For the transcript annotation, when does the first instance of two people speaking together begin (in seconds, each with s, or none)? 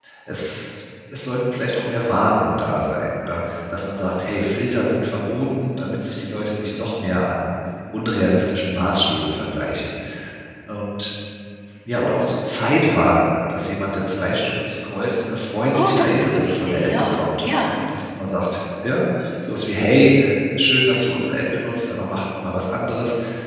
15.7 s